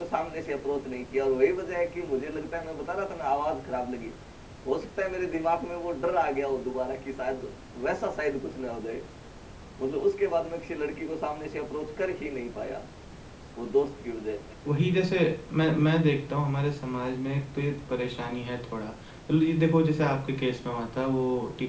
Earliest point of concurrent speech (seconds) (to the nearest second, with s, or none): none